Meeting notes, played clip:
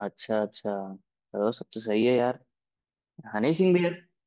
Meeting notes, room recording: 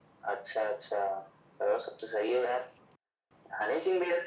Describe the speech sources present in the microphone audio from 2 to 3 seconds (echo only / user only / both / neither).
echo only